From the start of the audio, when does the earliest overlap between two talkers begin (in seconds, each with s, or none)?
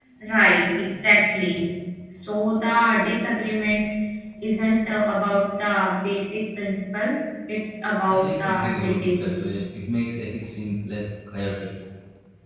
8.1 s